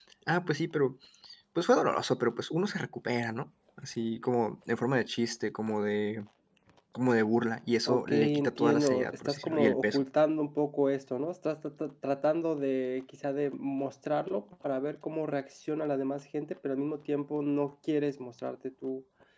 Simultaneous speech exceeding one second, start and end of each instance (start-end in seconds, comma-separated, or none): 7.9-10.0